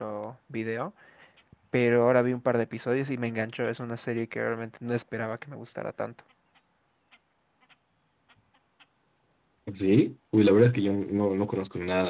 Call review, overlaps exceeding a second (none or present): none